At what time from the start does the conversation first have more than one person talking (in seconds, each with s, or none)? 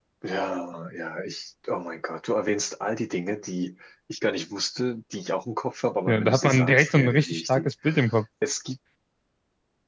6.1 s